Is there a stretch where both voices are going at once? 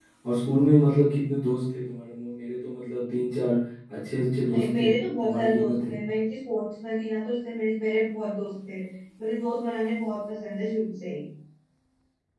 Yes, from 4.5 s

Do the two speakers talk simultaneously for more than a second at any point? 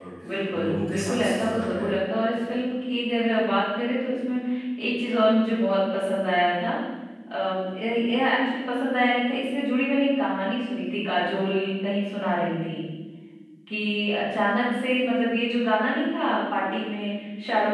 Yes, from 0.5 s

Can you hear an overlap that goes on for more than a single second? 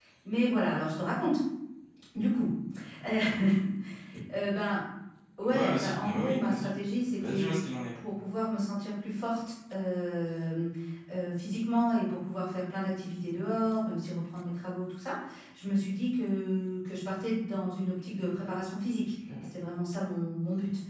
Yes, from 5.5 s

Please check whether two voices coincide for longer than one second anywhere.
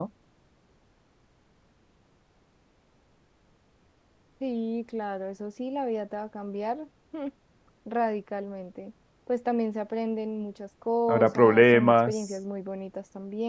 Yes, from 11.1 s

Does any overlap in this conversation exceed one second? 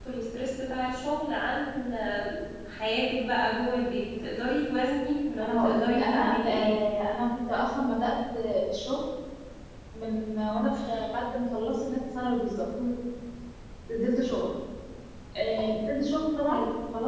Yes, from 5.4 s

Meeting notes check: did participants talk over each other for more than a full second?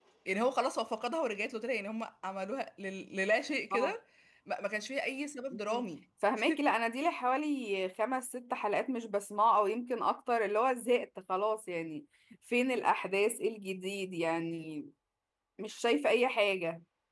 No

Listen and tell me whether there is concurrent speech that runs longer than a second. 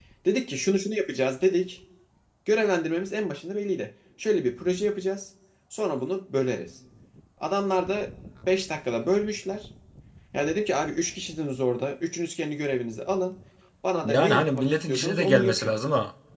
Yes, from 14.0 s

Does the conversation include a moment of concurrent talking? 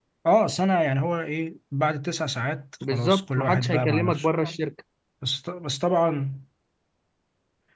Yes, from 2.8 s

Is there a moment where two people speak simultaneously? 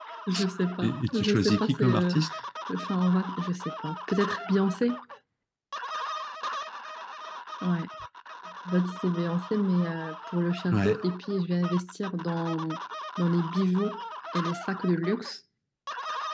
Yes, from 0.8 s

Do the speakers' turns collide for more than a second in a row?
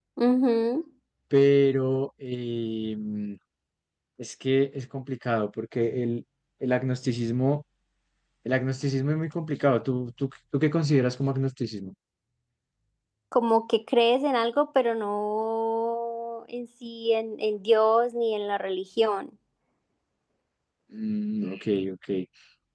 No

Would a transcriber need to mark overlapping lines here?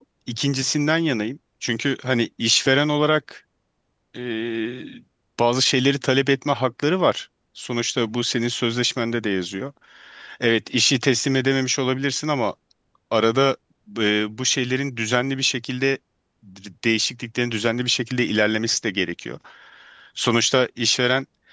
No

